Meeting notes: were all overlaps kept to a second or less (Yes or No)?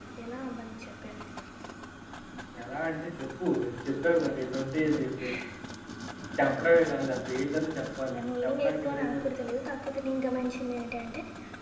No